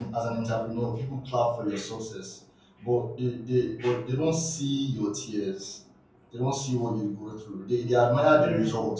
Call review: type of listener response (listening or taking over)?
listening